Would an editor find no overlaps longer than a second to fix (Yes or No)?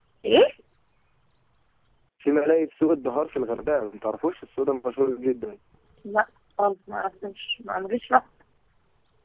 Yes